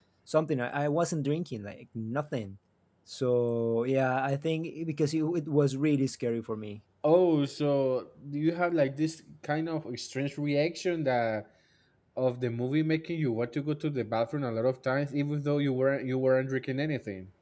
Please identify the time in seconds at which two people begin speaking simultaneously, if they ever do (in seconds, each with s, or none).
none